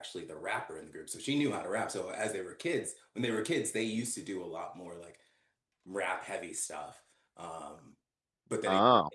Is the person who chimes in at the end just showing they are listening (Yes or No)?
Yes